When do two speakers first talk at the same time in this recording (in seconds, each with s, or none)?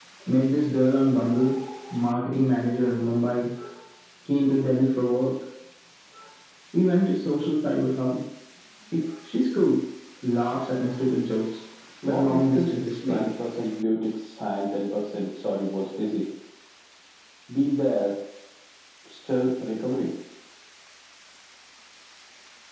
12.0 s